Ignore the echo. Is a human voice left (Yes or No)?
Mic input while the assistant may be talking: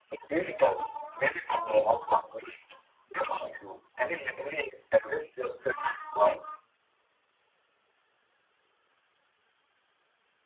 No